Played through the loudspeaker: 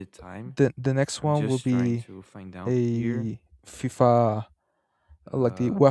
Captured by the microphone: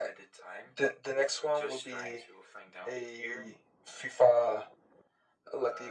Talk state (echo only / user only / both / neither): echo only